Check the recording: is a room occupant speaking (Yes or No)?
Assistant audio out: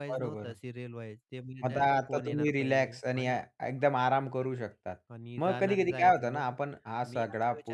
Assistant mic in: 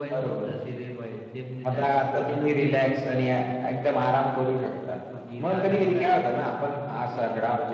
No